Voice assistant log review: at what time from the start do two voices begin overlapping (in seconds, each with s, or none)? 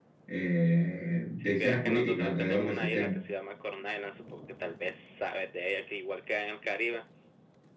1.4 s